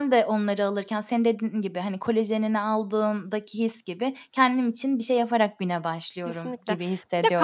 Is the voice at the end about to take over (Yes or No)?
Yes